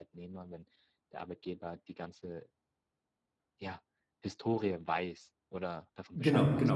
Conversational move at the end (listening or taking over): taking over